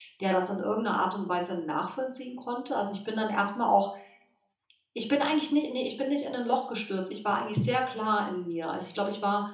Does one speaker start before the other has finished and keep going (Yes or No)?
No